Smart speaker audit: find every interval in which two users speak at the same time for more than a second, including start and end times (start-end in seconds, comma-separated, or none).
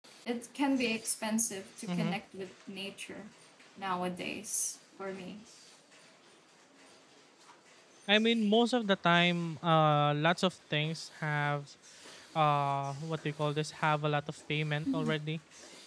none